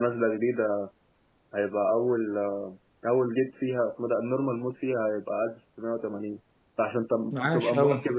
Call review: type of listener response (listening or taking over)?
listening